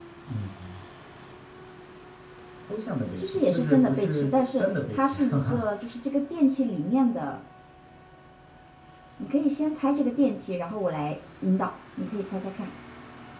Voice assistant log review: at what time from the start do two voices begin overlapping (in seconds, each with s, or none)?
3.1 s